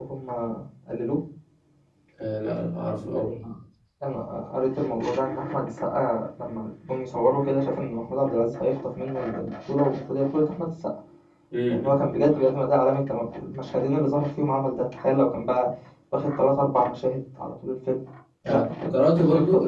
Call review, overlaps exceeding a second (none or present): present